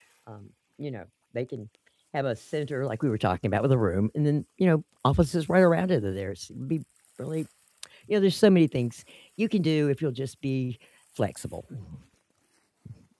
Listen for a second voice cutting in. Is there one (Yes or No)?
No